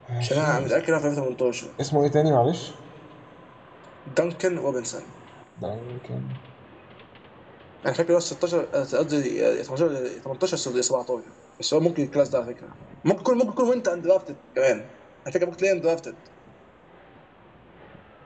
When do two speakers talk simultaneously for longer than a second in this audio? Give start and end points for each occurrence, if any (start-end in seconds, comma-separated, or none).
none